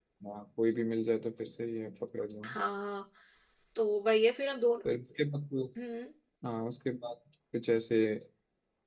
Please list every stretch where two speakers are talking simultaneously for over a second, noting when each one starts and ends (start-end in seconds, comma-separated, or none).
none